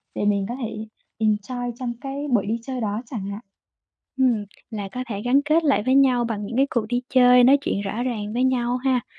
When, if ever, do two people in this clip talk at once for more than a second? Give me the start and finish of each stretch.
none

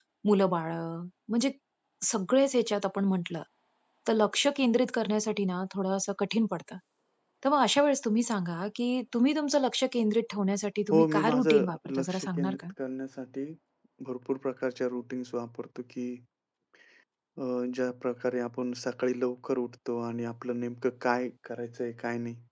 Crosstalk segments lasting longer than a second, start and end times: 10.9-12.7

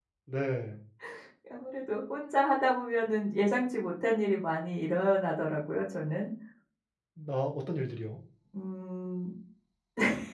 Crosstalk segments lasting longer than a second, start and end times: none

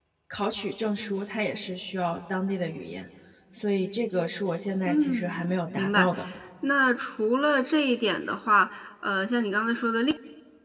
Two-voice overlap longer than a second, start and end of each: 4.9-6.1

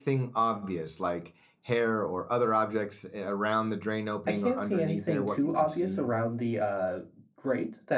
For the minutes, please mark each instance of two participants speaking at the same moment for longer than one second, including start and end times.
4.3-6.1

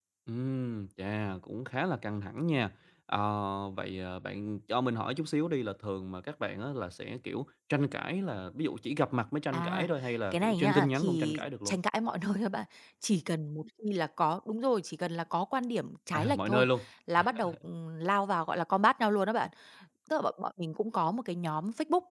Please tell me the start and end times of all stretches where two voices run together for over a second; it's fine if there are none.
10.3-11.8

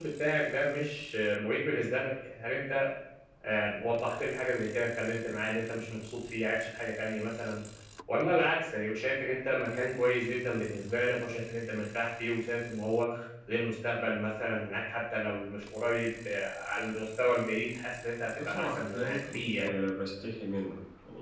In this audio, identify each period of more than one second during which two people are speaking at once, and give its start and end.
18.4-19.6

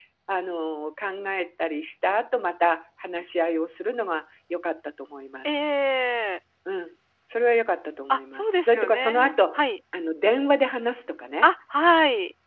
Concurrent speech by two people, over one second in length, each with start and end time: 8.1-9.6

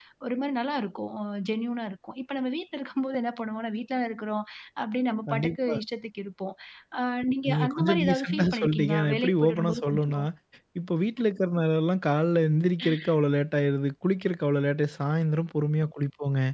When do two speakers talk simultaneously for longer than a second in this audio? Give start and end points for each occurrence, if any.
7.5-10.2

